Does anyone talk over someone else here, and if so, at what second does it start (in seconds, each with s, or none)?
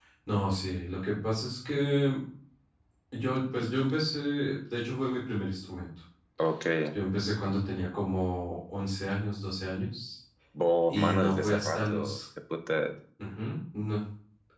10.9 s